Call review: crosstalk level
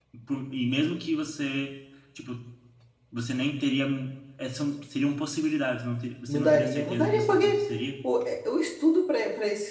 present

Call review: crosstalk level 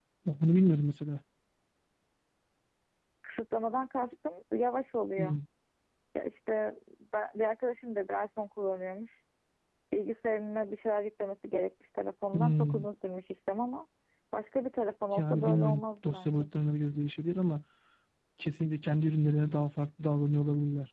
present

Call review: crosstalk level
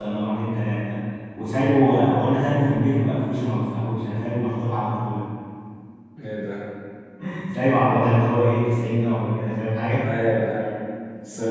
none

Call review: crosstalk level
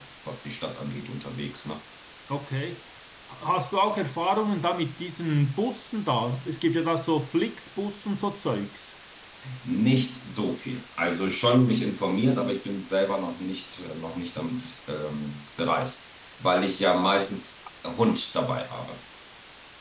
none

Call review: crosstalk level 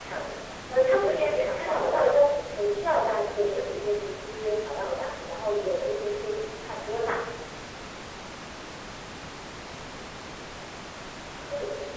present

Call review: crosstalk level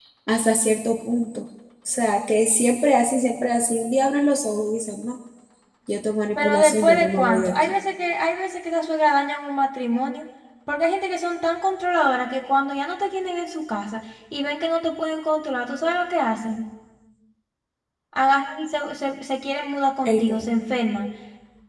present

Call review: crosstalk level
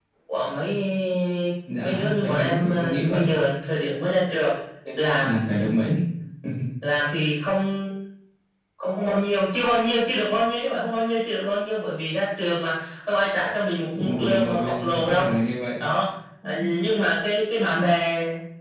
present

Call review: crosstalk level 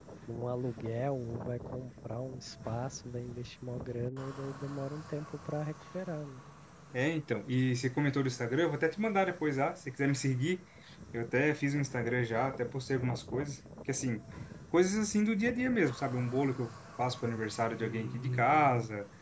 none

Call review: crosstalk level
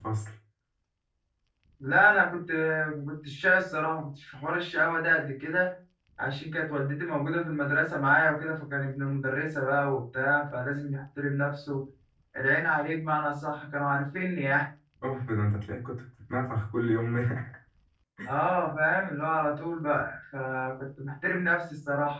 none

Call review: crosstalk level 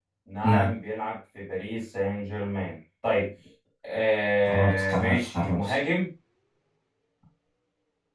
present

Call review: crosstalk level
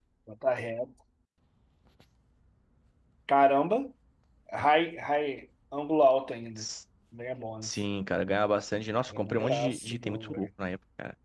present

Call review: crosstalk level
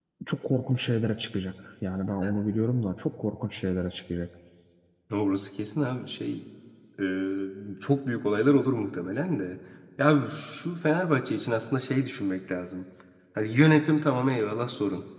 none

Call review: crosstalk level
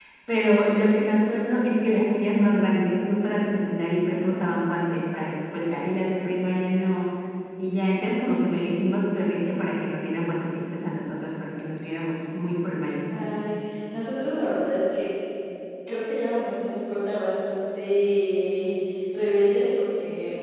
none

